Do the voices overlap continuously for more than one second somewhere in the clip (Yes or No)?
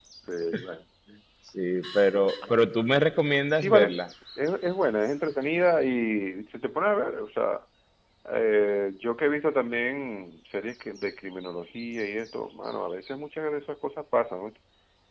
No